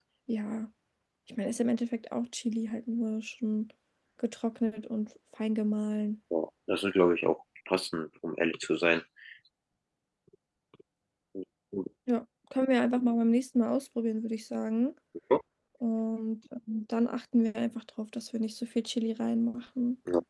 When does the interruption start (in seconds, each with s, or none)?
none